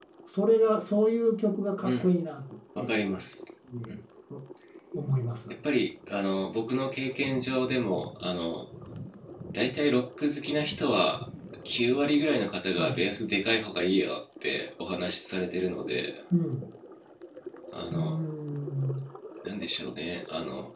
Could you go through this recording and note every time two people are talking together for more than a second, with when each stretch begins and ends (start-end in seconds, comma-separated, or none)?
none